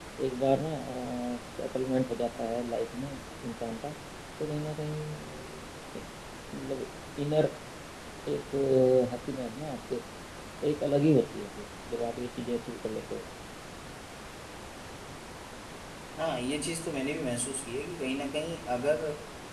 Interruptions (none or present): none